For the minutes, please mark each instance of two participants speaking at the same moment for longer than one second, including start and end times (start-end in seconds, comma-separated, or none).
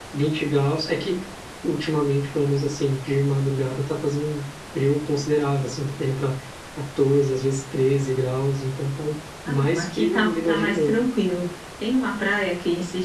9.5-11.1